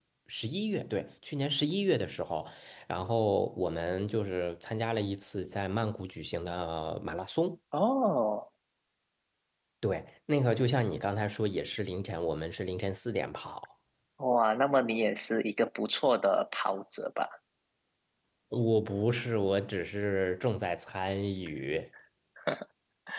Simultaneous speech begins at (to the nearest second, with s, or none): none